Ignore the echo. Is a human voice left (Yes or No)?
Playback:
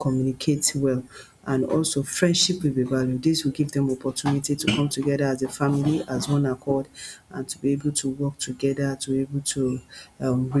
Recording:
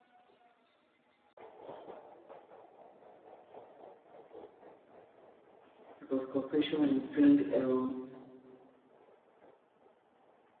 Yes